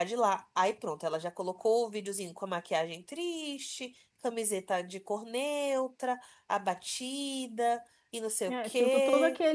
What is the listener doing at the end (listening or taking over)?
taking over